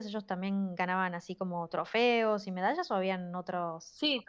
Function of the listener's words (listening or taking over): taking over